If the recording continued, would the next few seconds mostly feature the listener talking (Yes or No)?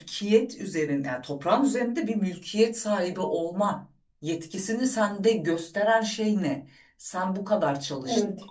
No